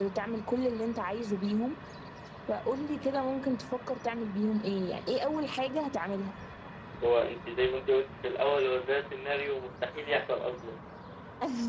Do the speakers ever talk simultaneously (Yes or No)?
No